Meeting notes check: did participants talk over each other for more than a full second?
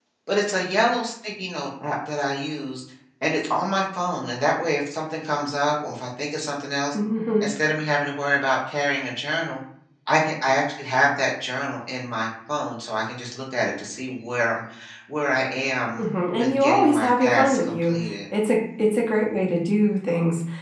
Yes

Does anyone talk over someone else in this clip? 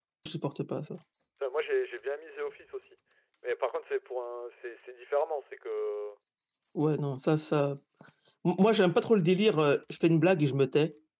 No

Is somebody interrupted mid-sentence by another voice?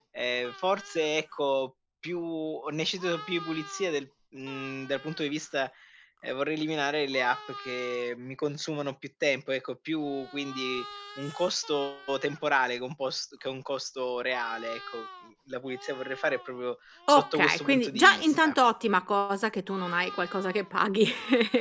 Yes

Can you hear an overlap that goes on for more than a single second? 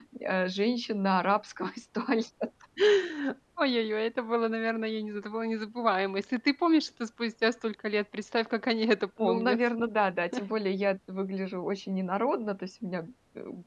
No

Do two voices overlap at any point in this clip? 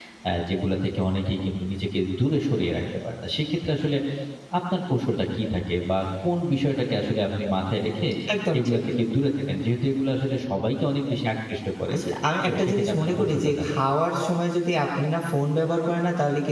Yes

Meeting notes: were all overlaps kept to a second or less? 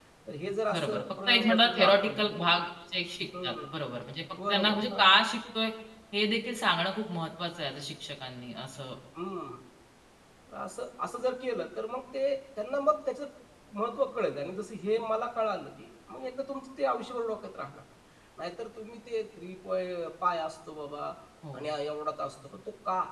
No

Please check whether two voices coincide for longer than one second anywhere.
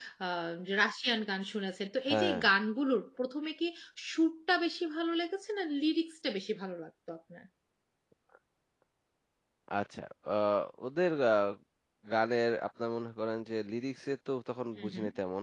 No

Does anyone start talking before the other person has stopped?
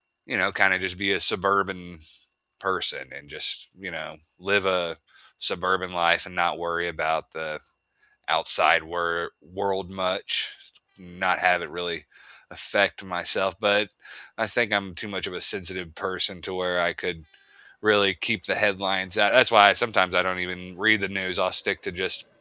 No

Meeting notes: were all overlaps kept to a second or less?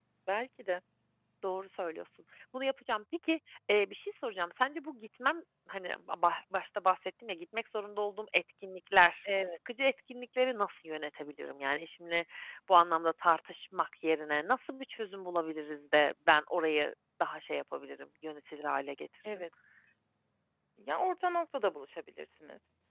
Yes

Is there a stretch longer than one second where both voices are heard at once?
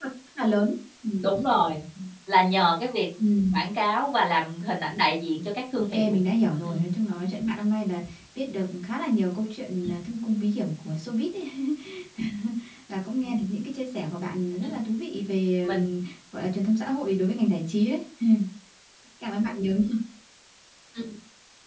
No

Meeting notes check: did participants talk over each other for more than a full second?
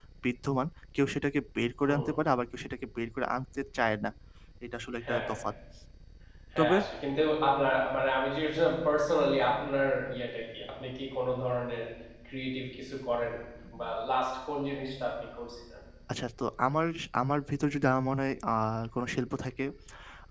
No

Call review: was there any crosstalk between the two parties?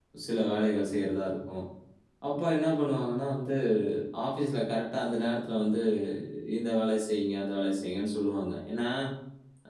No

